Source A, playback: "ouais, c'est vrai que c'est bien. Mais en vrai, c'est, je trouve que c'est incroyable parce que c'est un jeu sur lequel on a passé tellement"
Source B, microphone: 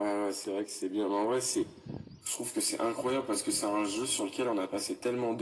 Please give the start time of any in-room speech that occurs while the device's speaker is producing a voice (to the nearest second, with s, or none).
none